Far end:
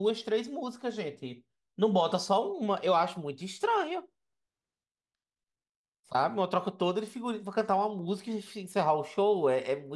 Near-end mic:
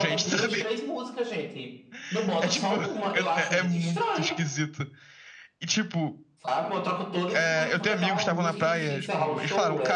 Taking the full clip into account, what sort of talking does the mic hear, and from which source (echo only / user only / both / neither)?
both